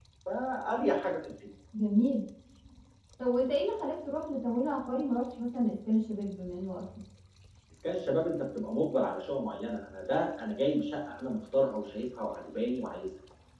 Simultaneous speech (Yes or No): No